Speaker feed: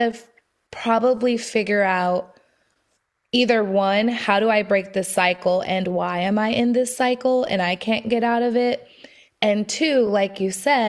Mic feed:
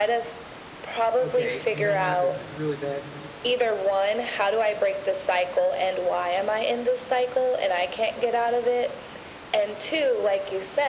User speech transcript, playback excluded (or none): okay you know what there's this really bad